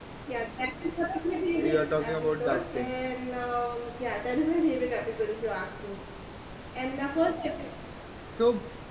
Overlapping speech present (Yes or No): Yes